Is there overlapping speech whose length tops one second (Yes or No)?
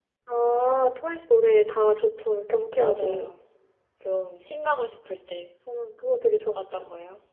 No